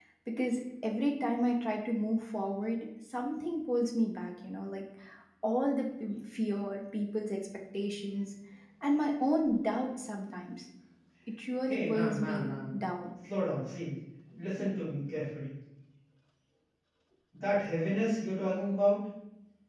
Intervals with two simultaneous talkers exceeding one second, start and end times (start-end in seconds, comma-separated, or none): 11.7-12.9